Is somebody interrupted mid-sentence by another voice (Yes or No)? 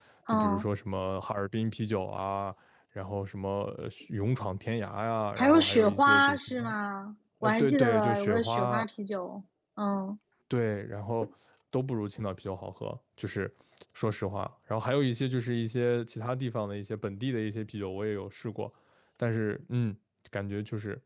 Yes